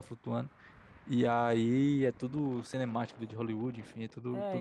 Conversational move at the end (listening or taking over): taking over